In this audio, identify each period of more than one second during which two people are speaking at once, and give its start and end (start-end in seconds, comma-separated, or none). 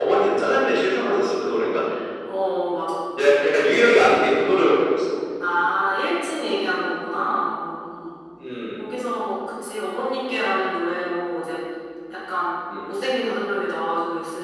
none